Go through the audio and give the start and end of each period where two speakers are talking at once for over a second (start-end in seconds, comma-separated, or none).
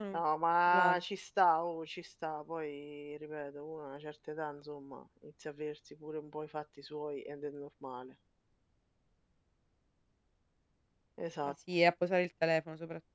none